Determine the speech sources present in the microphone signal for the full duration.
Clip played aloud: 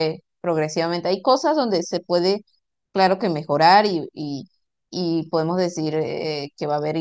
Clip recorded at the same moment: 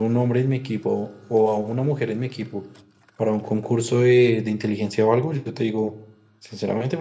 user only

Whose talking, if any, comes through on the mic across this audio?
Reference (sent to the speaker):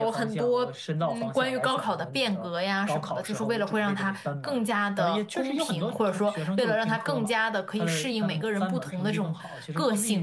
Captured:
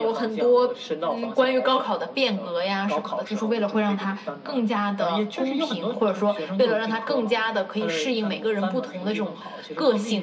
echo only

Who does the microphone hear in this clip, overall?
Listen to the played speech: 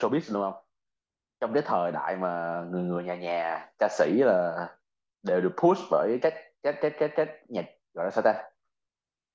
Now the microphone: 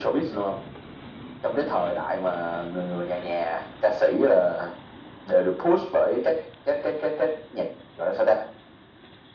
echo only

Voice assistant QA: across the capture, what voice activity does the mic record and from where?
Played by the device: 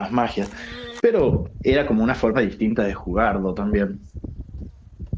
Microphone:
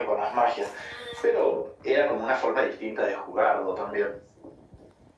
echo only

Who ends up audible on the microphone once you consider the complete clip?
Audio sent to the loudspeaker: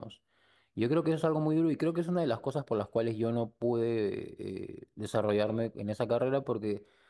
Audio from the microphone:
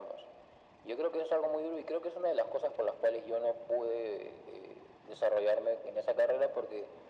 echo only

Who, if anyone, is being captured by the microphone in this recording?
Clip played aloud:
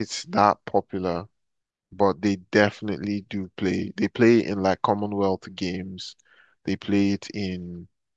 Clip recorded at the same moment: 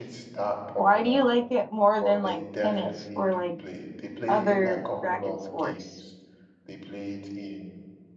both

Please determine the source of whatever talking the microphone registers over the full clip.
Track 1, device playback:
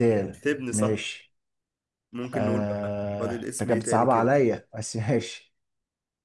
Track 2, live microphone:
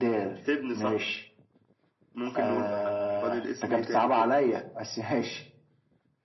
echo only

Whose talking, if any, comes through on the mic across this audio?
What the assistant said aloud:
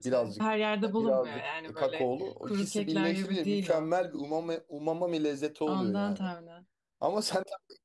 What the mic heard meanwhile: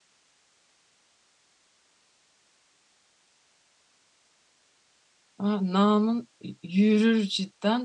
user only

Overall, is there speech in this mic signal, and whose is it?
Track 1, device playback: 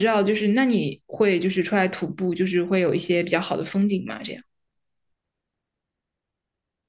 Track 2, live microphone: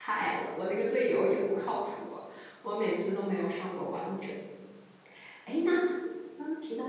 user only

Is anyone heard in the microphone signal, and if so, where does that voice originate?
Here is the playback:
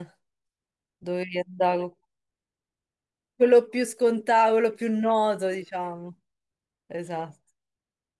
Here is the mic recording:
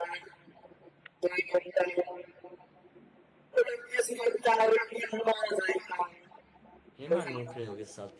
both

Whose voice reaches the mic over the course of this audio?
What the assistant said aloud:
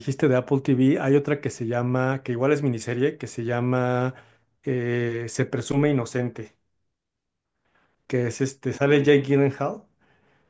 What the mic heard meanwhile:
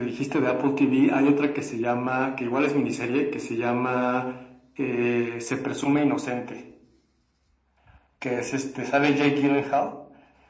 echo only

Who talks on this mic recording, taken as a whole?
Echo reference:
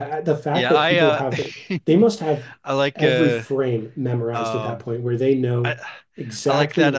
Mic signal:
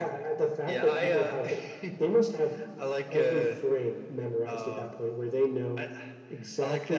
echo only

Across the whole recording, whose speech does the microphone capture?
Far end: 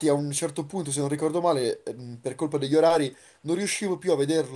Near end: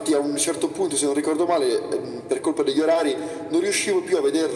echo only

